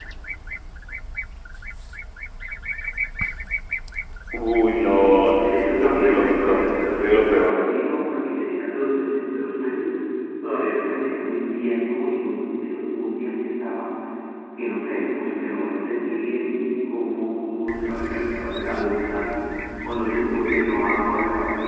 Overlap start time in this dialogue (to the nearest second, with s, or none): 5 s